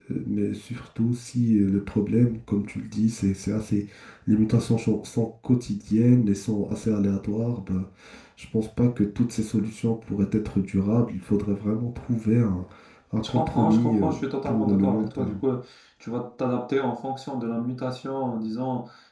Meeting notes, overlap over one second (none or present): present